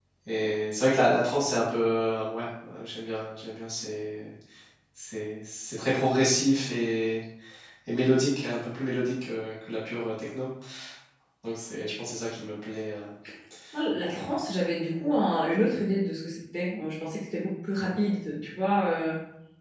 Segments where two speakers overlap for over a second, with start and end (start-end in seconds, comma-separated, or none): none